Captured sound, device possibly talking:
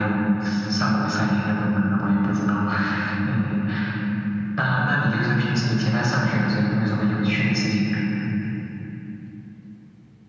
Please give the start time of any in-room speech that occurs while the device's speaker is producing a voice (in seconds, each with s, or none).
none